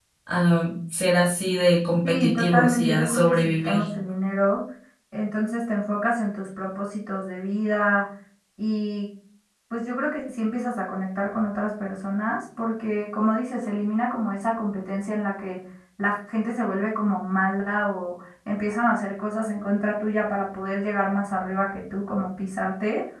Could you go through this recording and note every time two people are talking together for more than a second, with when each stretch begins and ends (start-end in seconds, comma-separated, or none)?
2.0-3.8